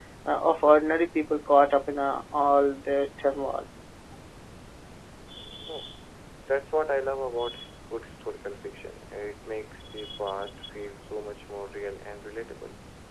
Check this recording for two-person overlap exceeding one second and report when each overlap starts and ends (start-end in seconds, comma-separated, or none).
none